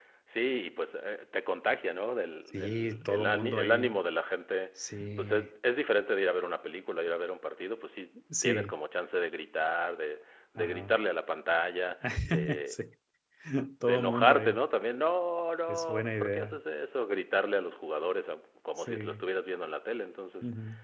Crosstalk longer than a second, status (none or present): present